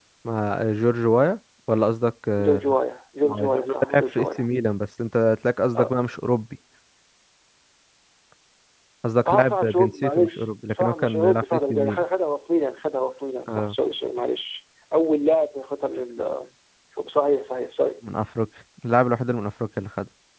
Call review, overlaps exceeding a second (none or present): present